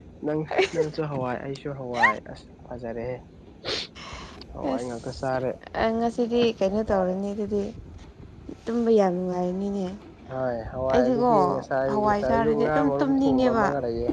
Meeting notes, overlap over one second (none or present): present